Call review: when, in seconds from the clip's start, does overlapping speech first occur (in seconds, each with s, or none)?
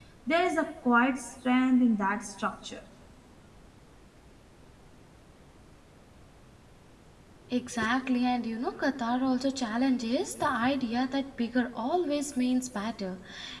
none